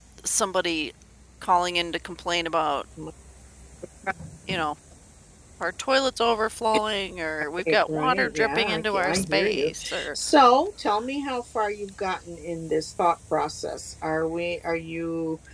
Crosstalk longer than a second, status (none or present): present